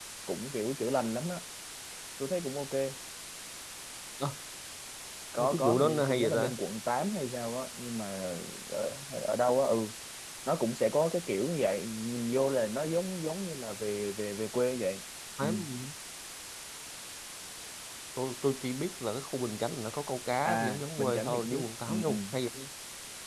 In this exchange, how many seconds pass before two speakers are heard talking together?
5.4 s

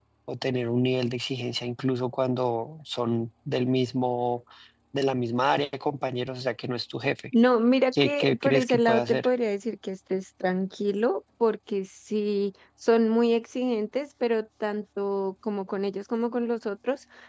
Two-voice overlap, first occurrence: 7.9 s

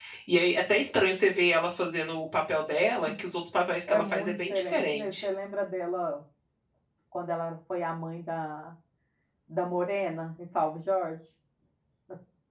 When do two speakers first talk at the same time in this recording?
3.9 s

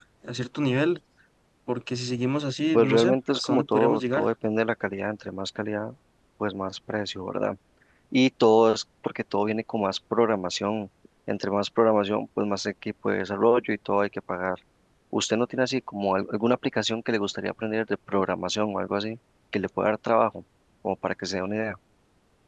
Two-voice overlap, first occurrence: 2.7 s

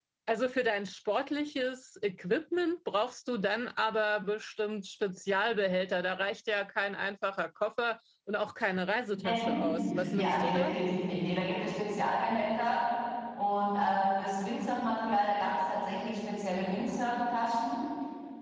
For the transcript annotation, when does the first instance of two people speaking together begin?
9.2 s

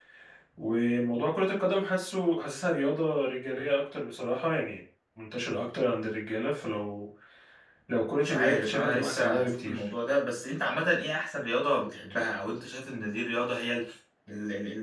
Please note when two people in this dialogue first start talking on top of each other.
8.2 s

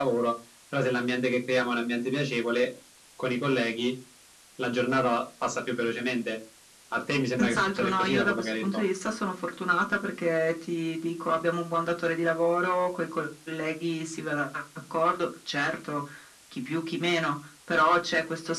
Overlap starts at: 7.4 s

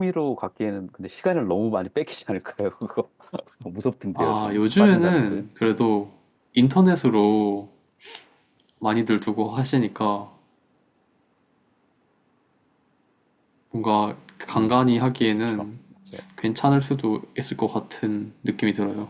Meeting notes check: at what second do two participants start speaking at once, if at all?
4.2 s

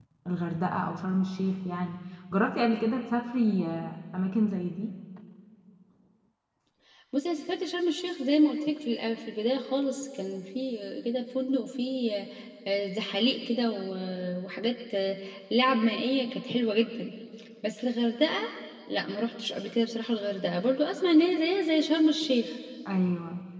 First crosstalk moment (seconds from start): none

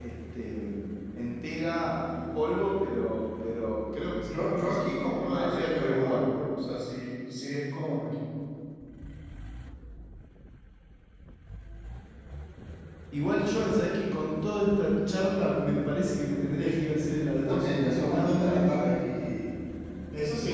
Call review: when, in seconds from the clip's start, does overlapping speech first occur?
4.2 s

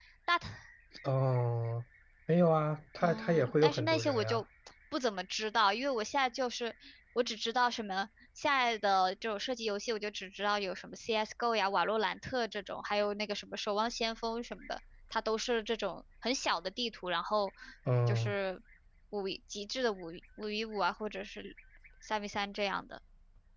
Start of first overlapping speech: 3.0 s

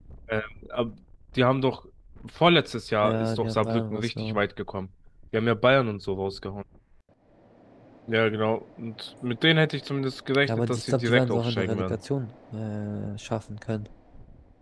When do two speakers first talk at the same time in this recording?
3.0 s

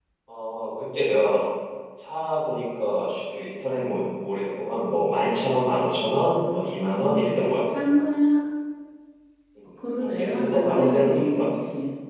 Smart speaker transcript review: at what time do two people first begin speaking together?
6.1 s

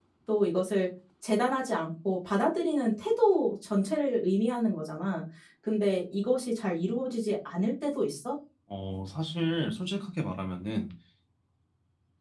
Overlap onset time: none

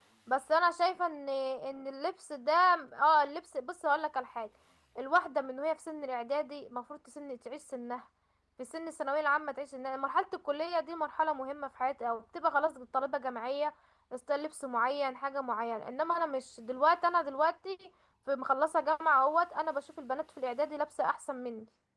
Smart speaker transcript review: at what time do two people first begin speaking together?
none

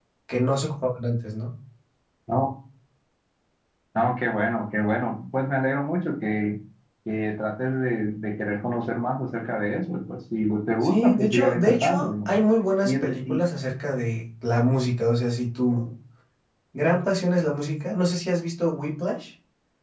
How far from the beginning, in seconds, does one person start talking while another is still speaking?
10.8 s

